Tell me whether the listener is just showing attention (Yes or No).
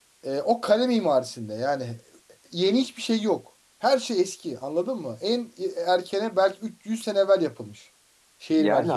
No